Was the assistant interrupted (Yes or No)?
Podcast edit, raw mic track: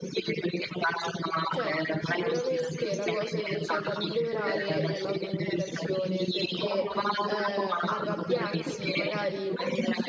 Yes